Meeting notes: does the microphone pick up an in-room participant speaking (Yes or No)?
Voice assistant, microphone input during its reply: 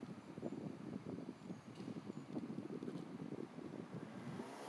No